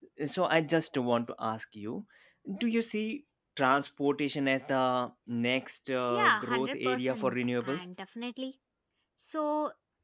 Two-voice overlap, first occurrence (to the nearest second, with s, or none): 6 s